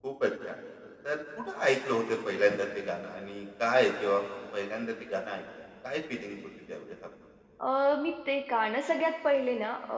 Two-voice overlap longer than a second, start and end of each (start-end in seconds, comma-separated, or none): none